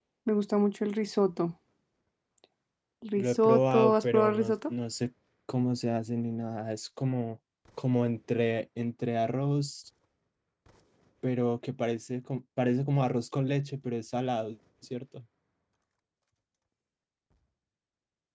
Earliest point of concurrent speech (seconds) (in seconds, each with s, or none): 3.2 s